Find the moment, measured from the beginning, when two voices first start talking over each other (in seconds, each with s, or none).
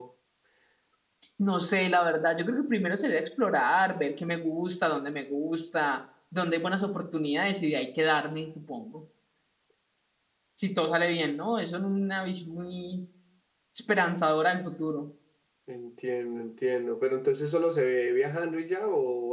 none